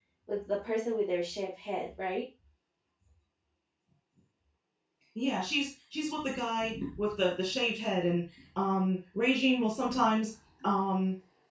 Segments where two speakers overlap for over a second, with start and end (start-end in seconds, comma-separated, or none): none